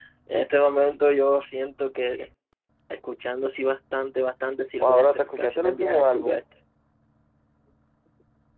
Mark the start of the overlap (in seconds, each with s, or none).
4.8 s